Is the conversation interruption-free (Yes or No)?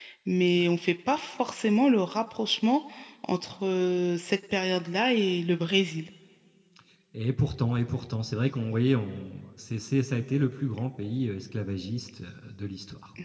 Yes